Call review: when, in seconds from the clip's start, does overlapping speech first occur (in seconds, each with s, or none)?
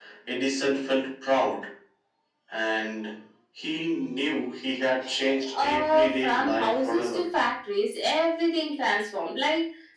5.5 s